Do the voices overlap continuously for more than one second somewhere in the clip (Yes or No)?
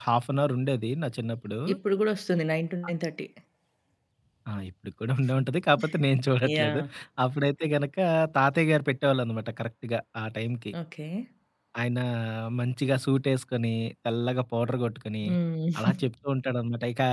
No